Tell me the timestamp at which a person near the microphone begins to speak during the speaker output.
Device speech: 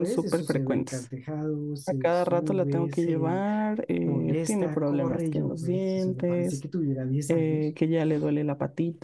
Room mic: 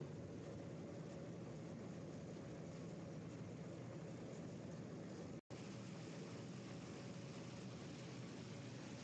none

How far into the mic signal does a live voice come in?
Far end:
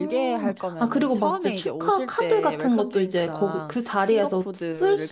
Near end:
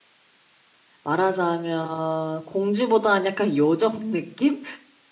1 s

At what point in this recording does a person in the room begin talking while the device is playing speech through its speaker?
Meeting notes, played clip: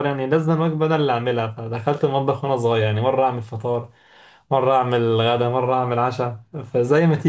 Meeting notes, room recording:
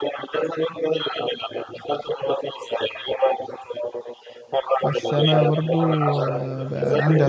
5 s

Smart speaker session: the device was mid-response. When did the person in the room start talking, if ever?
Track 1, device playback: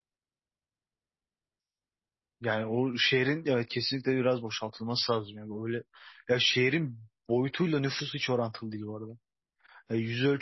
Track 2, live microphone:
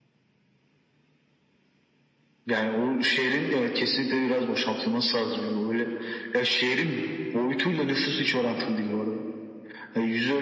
none

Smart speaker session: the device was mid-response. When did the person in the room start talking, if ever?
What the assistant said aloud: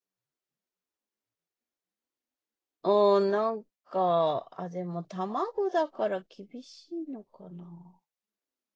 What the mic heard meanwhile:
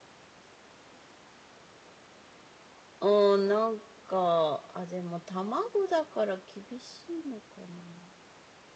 none

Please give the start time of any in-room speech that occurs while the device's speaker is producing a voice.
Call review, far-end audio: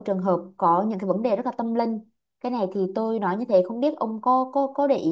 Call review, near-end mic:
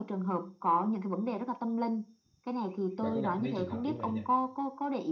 3 s

